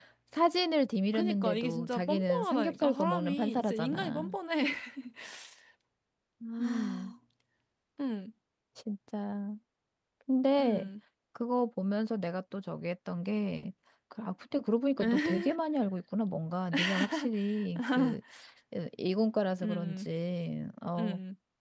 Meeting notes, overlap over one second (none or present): present